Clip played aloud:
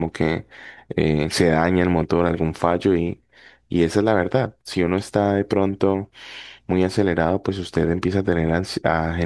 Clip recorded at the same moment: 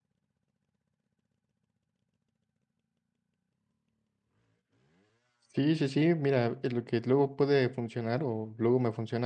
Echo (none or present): none